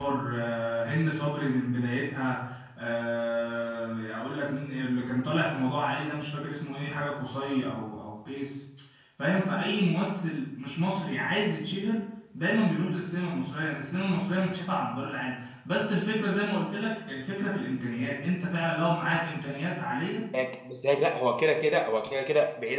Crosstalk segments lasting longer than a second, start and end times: none

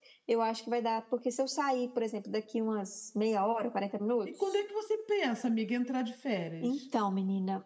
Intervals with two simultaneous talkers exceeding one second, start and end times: none

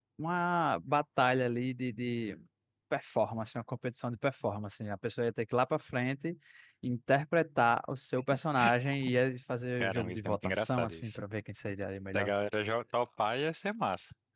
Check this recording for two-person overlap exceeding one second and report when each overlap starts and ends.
9.8-11.2

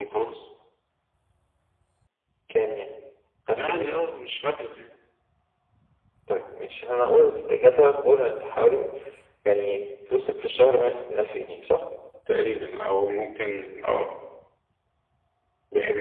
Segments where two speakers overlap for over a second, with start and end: none

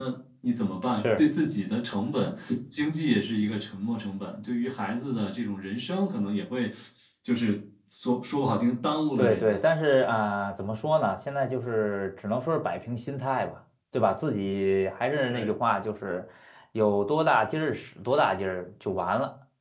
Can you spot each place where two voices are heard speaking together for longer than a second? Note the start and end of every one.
none

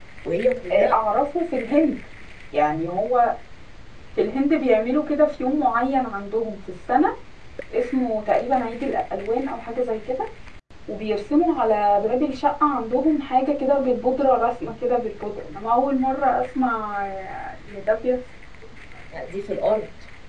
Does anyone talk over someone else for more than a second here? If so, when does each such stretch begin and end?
none

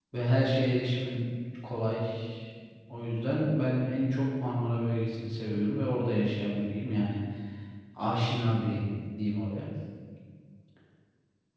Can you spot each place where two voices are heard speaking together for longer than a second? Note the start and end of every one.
none

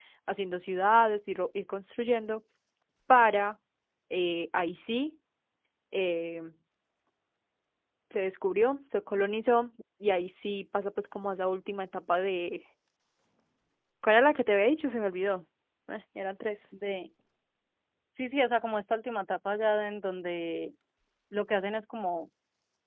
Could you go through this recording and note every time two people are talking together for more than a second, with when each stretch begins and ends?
none

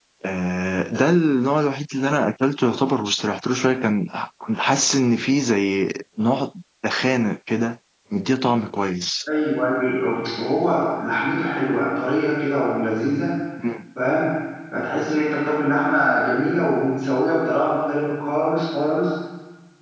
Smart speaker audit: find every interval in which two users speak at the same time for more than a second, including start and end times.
none

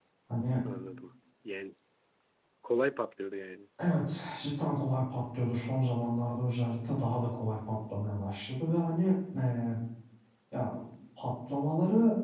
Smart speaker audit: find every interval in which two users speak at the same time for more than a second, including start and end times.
none

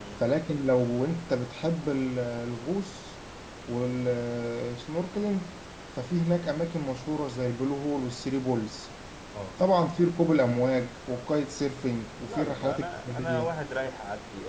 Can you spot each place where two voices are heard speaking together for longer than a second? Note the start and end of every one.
12.3-13.6

